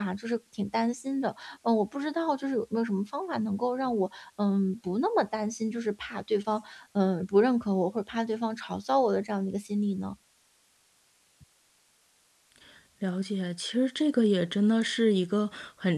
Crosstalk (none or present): none